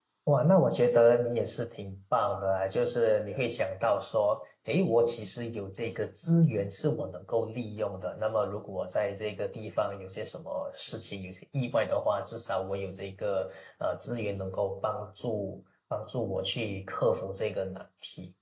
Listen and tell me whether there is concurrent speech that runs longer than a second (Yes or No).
No